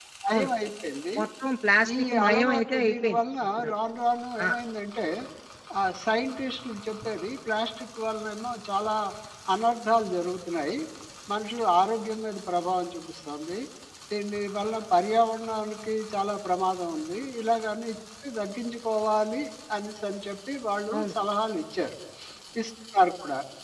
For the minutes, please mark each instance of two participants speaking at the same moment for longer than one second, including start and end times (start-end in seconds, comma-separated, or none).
2.1-3.7